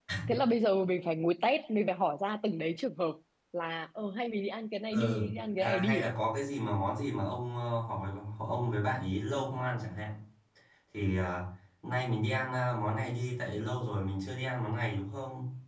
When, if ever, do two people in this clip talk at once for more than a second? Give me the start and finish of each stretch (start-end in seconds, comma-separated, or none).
4.9-6.1